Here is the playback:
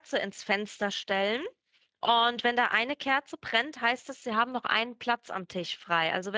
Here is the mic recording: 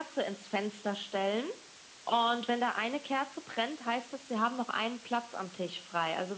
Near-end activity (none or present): none